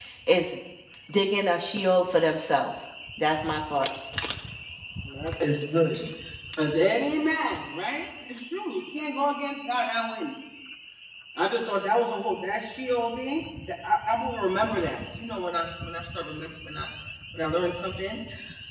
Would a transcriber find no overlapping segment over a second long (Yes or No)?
Yes